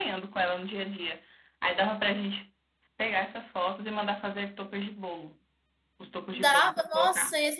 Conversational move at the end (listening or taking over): taking over